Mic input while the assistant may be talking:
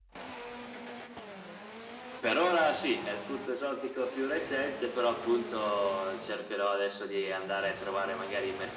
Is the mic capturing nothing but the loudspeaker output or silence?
Yes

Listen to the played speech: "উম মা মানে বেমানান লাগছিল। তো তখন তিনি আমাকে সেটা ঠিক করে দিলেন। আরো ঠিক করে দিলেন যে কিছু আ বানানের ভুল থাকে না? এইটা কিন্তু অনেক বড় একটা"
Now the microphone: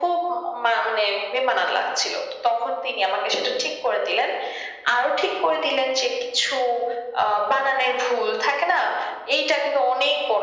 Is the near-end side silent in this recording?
Yes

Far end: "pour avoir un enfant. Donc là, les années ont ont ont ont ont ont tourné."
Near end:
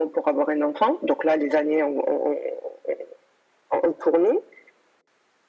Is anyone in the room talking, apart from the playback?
No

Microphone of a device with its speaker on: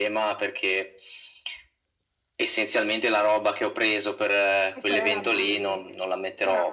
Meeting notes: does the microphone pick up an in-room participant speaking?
Yes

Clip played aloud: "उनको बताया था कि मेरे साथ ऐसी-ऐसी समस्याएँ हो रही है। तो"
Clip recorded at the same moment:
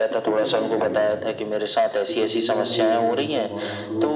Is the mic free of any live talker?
No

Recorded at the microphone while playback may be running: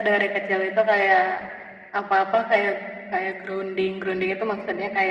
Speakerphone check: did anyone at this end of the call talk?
No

